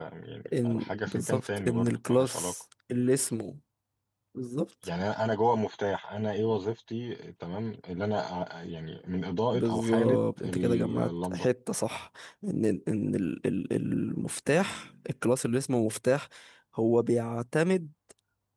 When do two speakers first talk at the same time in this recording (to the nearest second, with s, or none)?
1 s